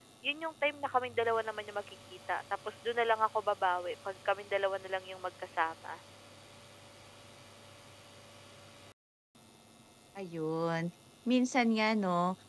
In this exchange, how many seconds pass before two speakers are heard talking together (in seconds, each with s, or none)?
none